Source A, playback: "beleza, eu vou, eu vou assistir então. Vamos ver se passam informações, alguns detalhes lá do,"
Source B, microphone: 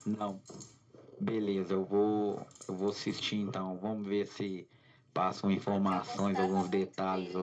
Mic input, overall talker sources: both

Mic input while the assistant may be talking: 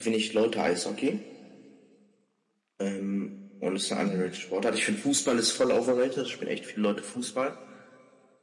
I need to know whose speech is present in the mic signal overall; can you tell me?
user only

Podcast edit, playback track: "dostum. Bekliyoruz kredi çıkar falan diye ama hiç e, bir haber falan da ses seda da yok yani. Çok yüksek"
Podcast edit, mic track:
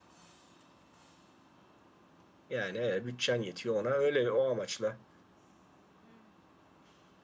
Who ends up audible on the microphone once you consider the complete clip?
user only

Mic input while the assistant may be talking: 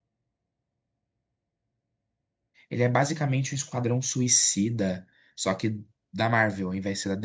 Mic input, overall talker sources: user only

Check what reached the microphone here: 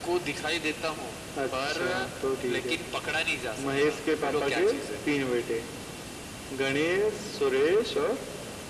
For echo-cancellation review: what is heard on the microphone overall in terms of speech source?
echo only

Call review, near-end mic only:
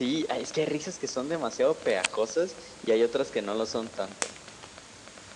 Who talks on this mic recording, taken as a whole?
echo only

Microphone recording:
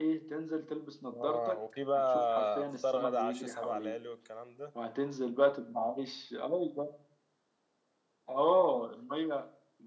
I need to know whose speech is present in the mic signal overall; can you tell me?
both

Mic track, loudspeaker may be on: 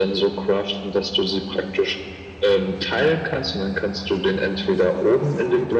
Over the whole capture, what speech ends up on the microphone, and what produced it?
echo only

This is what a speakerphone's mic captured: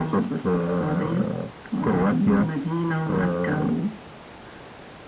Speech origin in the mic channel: echo only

